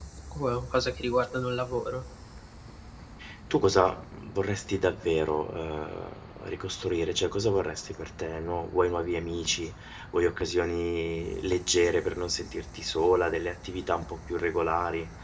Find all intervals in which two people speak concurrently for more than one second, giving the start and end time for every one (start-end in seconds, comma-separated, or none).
none